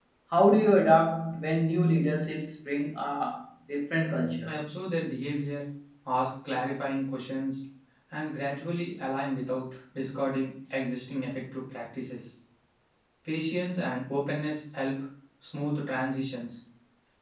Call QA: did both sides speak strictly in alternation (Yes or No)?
Yes